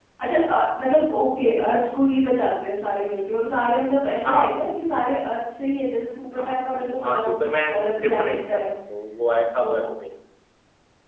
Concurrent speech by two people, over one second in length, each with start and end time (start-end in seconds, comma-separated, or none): 6.4-8.7